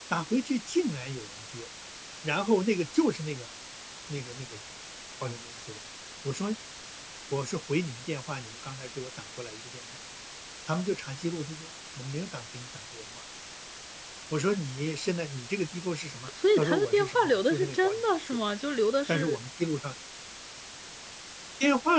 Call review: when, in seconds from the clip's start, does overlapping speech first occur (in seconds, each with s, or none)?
16.6 s